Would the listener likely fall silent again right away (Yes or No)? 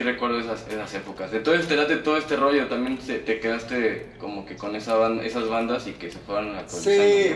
No